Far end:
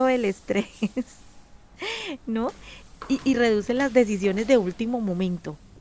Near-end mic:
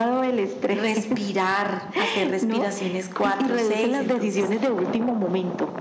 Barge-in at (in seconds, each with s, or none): 0.6 s